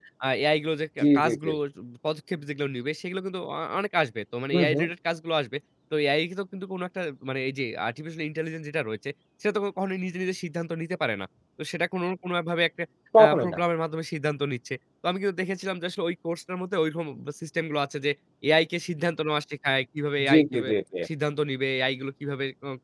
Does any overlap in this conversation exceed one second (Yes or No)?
No